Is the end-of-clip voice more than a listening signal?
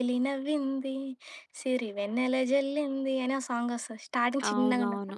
Yes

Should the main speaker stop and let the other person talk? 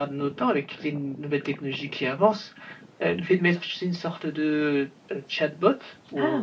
No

